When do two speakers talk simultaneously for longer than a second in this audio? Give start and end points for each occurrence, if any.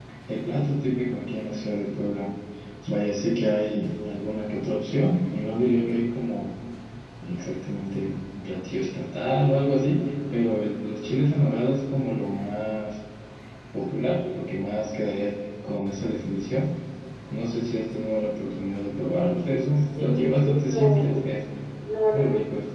19.8-21.2

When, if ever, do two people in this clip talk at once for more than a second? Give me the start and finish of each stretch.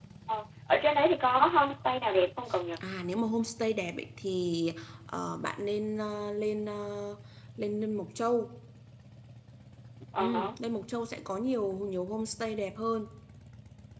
none

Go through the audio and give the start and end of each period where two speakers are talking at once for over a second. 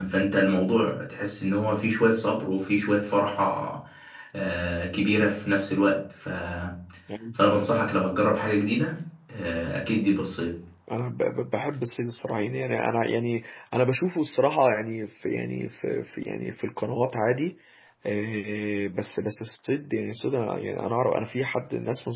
none

